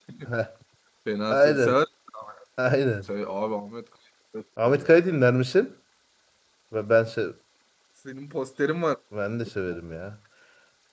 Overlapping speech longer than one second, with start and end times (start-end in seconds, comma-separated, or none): none